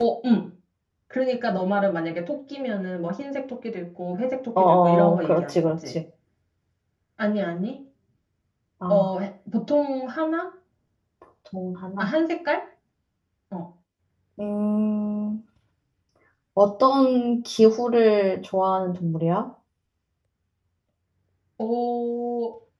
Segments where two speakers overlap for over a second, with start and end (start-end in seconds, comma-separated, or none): 4.6-5.9